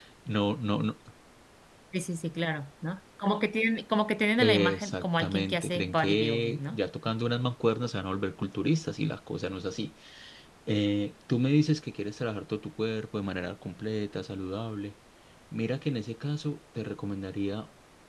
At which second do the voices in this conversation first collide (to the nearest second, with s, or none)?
4 s